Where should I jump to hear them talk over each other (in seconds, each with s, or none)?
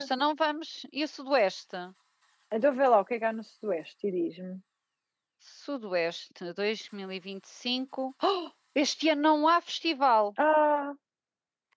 none